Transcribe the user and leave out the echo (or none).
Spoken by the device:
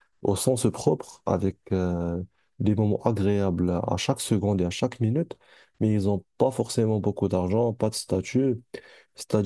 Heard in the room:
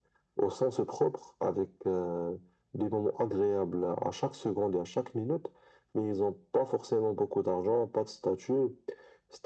none